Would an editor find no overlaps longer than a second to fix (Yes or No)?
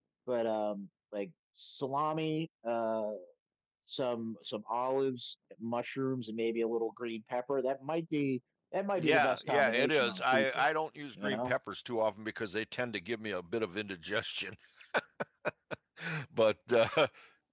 No